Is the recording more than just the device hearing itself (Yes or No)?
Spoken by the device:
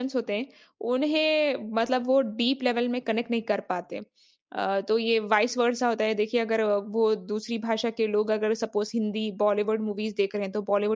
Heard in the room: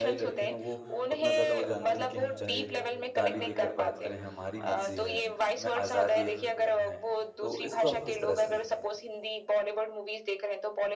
Yes